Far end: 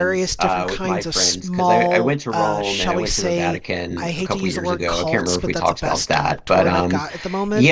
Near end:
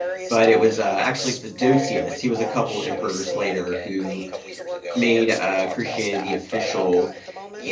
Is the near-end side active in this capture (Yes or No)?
Yes